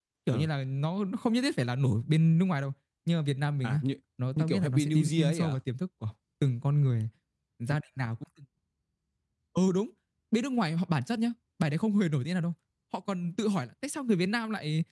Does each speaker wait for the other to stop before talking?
No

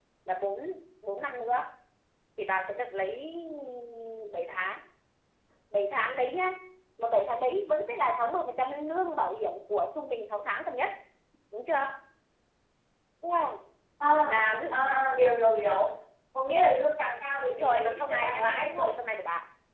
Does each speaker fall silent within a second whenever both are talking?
No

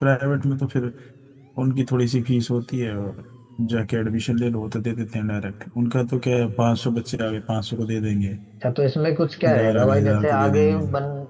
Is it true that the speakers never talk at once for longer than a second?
No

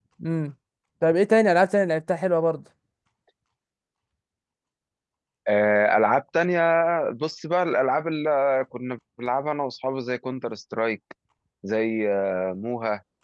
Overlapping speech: No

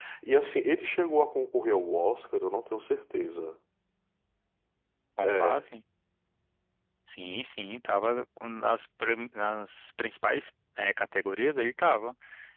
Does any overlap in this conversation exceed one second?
No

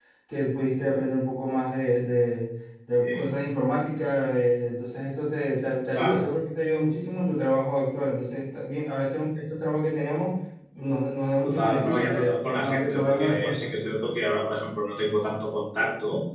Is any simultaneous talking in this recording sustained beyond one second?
Yes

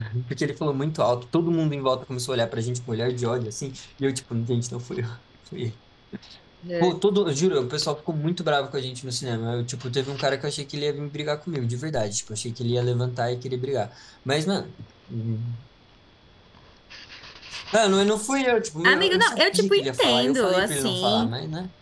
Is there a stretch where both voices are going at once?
Yes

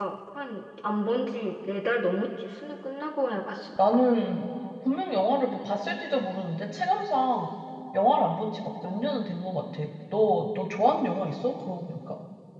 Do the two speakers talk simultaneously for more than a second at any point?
No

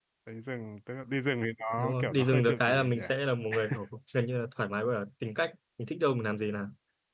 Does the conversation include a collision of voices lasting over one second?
Yes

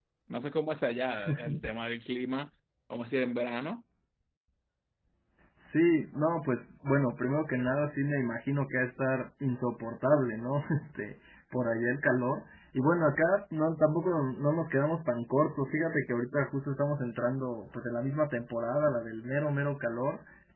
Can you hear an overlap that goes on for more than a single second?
No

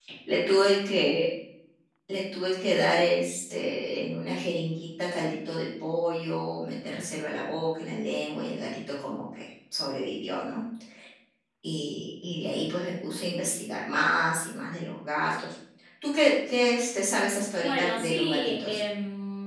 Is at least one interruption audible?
Yes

